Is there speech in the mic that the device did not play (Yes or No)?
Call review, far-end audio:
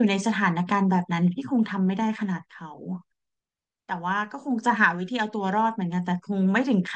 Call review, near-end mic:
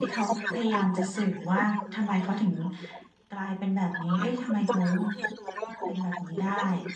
Yes